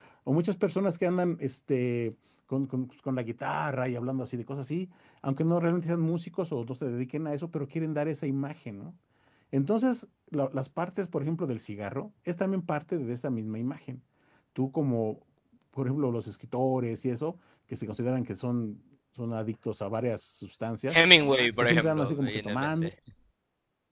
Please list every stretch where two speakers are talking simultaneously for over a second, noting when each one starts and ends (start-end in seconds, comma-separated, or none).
21.6-22.9